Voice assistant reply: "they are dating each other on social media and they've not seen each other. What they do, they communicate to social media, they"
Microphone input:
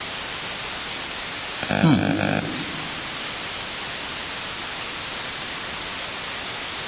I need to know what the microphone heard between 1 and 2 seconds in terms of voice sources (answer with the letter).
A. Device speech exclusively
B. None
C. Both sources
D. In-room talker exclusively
D